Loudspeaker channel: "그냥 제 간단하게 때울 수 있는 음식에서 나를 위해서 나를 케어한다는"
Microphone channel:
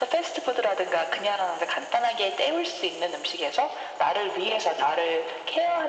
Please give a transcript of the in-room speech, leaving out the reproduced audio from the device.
none

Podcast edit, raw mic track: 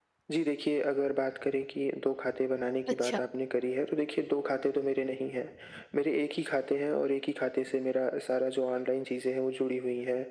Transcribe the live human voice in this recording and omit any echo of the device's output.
अच्छा।

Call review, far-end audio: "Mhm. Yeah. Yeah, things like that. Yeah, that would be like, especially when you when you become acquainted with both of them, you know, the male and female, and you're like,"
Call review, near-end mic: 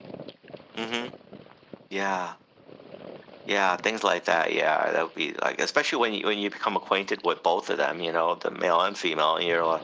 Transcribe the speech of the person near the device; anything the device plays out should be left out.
none

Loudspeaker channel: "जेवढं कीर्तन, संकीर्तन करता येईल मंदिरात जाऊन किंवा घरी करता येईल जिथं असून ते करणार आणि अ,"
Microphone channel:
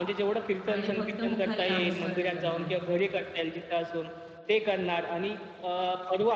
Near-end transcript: आणि फक्त मुखाने नामस्मरण करणार.

